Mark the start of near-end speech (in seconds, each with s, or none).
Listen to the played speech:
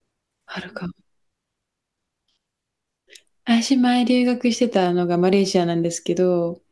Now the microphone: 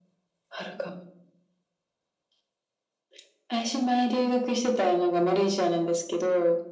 none